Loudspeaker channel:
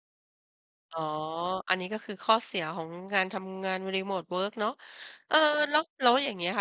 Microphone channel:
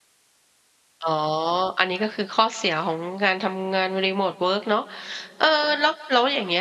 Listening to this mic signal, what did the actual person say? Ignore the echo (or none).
none